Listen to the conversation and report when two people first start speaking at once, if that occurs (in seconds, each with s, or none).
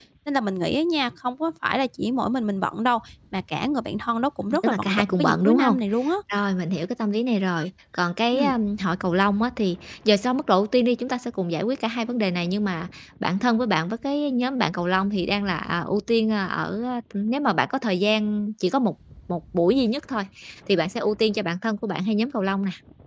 4.5 s